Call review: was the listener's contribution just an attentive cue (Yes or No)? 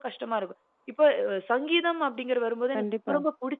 Yes